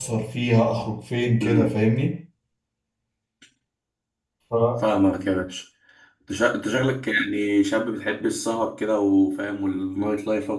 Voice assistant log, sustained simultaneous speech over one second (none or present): none